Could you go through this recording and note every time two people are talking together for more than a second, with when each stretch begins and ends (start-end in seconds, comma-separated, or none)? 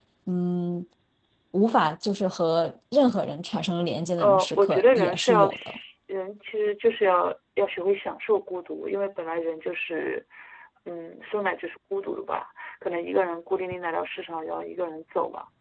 4.2-5.8